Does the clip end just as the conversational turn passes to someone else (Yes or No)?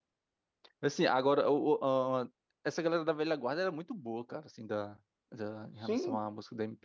No